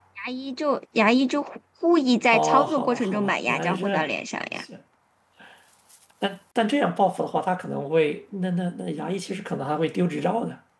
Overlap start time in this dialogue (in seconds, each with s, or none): 2.3 s